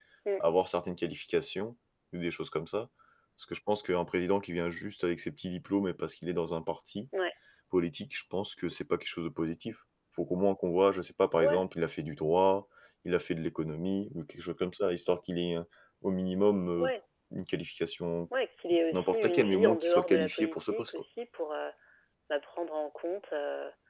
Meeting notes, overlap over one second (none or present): present